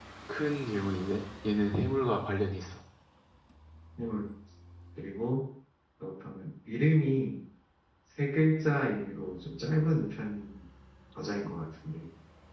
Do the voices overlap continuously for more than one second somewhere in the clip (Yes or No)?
No